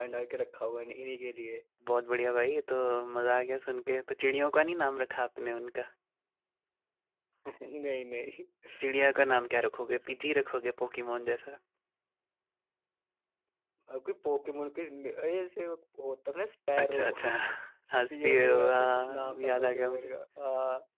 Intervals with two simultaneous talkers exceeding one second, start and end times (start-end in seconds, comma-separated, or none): 18.1-20.1